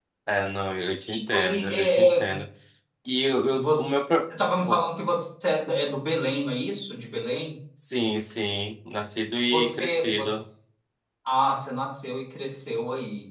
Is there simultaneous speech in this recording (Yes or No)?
Yes